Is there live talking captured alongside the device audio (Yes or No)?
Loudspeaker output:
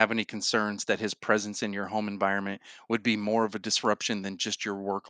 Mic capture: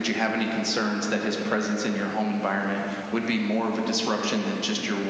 No